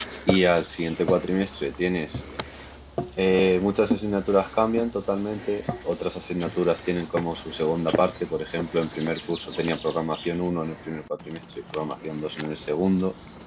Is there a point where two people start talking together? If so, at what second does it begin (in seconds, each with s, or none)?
none